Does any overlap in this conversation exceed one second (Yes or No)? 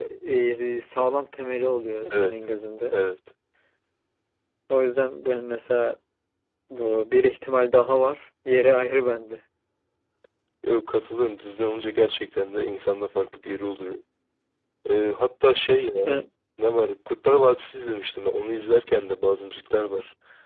No